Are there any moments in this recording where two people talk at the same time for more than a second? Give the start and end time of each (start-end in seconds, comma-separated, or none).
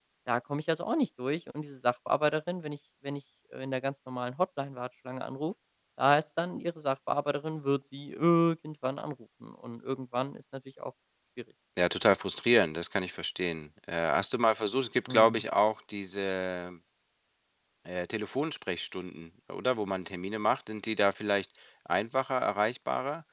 none